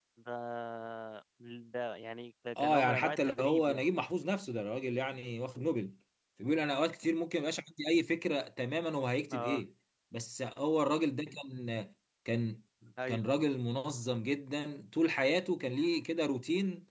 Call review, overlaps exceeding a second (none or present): present